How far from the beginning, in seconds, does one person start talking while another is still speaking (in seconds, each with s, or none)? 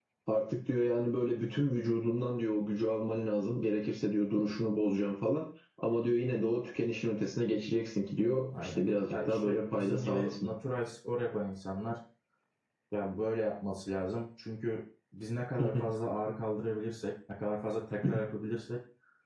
8.5 s